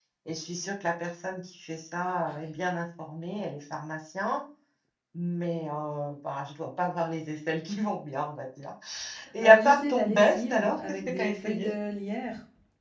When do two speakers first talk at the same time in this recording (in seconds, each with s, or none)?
9.4 s